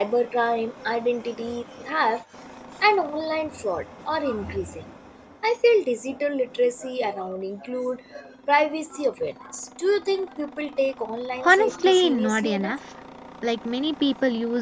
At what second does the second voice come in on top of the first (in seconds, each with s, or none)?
11.4 s